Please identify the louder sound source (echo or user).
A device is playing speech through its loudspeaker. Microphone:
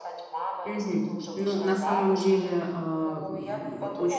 user